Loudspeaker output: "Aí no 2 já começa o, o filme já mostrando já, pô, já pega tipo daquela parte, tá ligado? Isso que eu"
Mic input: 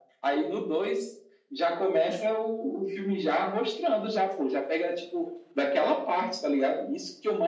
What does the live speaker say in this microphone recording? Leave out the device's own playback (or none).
none